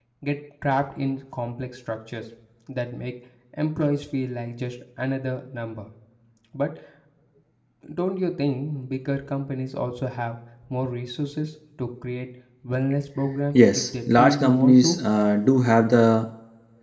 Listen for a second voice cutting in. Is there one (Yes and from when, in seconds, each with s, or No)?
Yes, from 13.6 s